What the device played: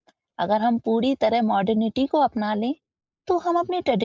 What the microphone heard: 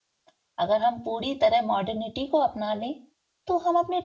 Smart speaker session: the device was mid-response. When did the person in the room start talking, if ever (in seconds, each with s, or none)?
none